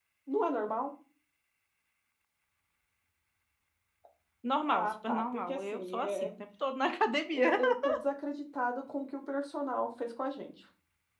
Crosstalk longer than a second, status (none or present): present